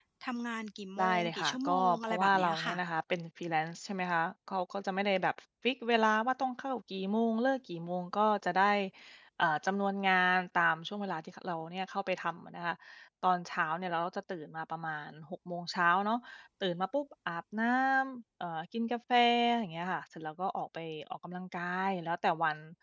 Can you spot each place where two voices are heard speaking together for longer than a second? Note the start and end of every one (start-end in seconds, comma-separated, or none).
1.0-2.8